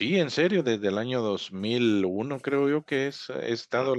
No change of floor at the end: No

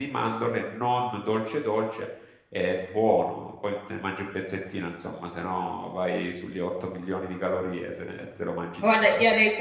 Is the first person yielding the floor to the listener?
Yes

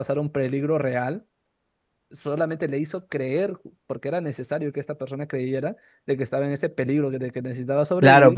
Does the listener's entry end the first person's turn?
Yes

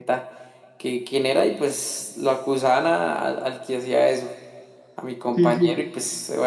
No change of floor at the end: Yes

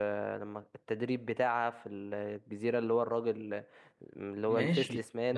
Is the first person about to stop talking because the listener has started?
Yes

